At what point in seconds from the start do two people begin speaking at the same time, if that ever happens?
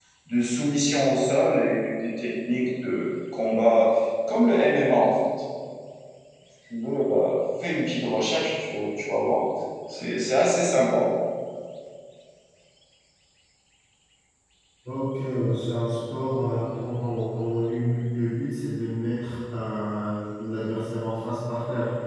none

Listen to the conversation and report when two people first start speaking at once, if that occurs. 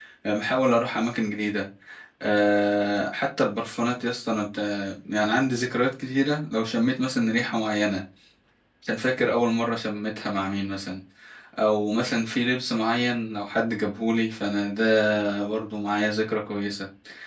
none

